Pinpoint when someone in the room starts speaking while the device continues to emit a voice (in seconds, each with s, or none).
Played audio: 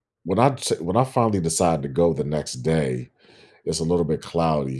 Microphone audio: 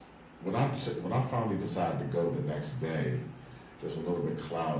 none